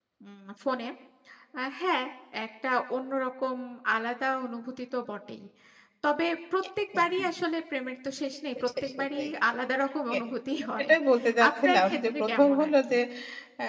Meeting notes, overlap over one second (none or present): present